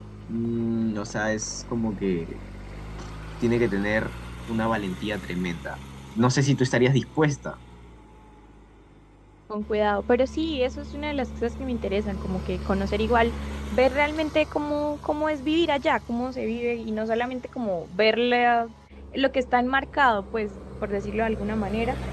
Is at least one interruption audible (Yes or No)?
No